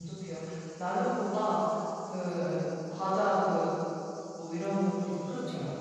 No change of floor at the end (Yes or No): No